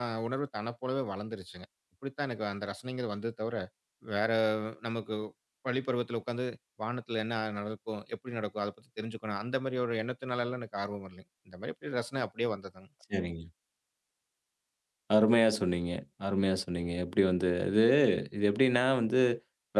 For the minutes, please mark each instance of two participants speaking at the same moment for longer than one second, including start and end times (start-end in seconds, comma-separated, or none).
none